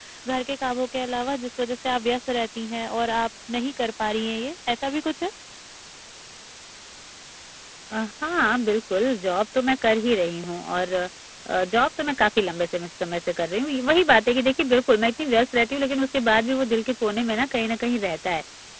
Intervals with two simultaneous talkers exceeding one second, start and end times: none

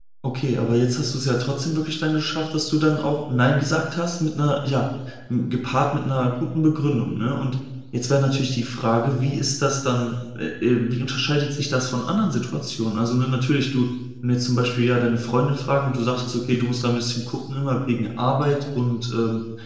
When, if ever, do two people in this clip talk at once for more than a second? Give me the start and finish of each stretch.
none

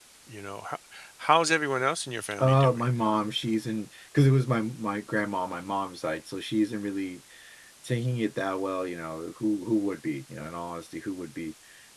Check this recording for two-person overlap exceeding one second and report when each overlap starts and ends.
none

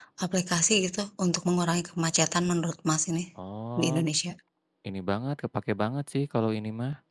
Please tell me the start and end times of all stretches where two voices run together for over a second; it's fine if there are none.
none

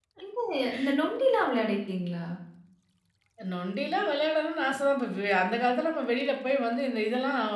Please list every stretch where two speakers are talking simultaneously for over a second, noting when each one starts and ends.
none

